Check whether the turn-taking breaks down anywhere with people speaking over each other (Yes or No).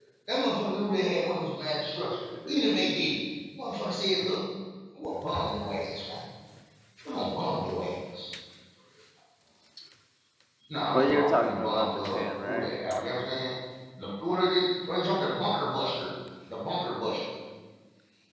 Yes